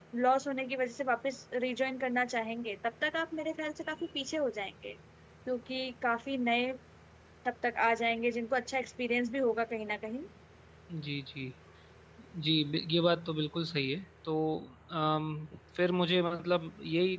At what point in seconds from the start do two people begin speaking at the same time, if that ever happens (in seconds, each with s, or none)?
none